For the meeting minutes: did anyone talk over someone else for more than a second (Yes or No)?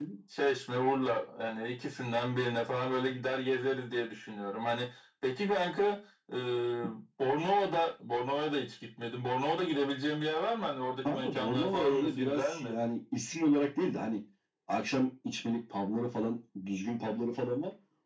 Yes